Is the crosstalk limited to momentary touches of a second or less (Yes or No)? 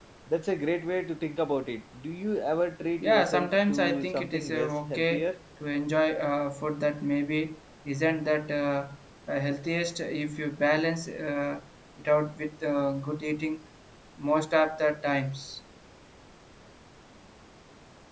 No